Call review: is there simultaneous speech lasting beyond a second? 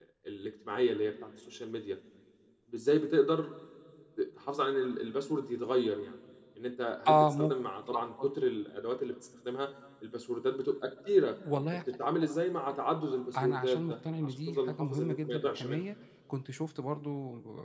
Yes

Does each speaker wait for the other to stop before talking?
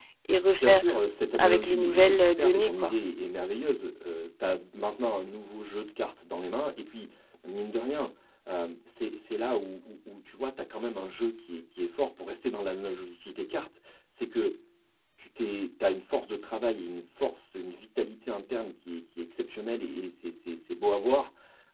No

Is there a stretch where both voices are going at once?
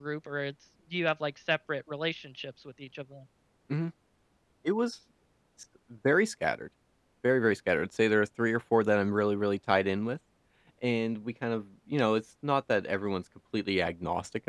No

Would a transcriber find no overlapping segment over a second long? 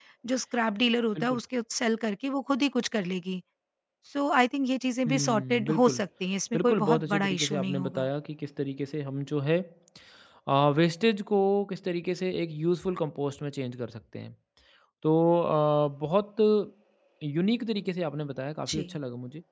No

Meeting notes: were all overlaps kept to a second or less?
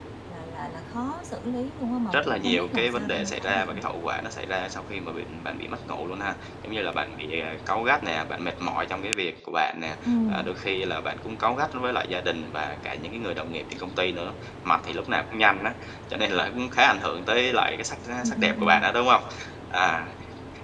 No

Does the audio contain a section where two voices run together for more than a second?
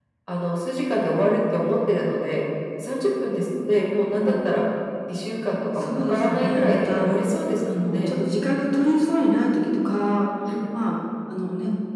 Yes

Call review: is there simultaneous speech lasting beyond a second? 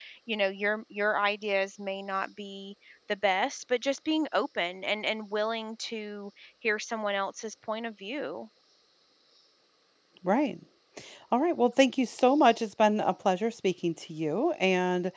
No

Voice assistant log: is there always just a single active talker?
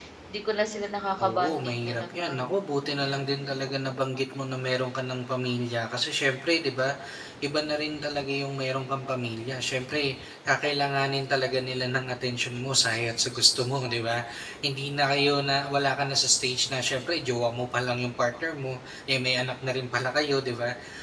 No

